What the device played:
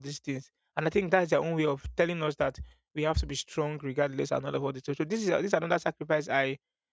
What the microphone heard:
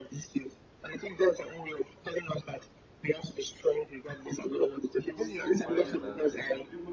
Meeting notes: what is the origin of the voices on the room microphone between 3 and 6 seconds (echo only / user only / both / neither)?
both